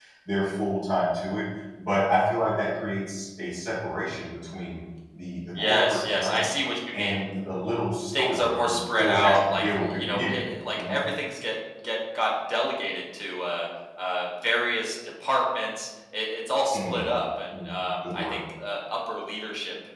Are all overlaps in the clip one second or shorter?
No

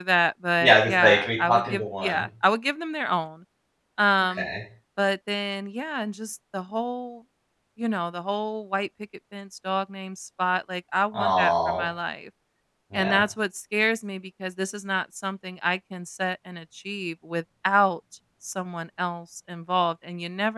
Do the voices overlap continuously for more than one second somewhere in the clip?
Yes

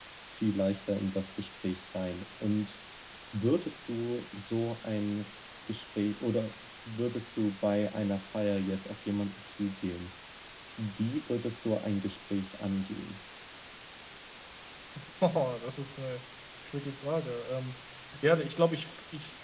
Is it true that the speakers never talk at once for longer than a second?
Yes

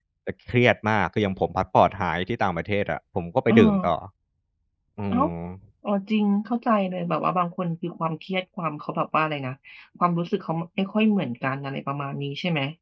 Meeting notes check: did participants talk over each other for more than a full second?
No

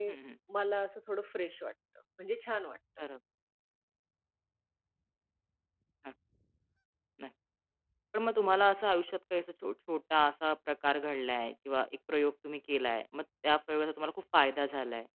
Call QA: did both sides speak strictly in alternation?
Yes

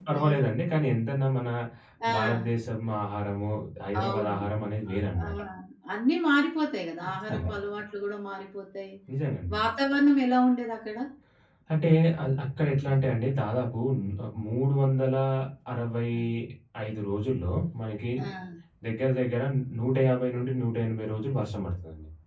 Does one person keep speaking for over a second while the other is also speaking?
No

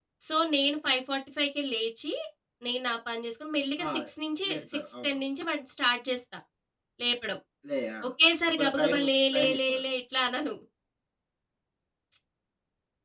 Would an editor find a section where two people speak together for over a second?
Yes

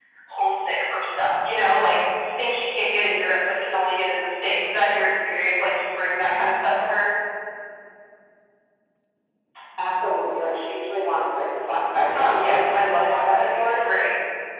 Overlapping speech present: Yes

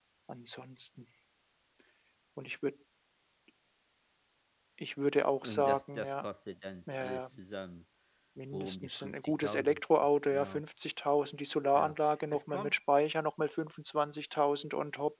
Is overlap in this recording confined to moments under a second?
No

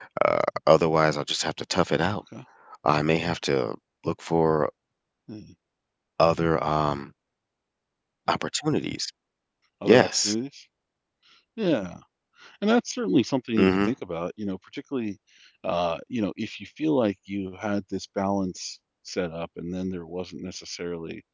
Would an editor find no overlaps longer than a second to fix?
Yes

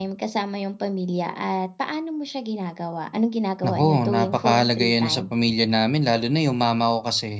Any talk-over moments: Yes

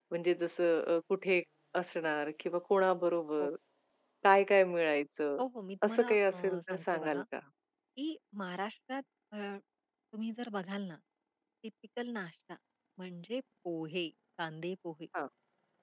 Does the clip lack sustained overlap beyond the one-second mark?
No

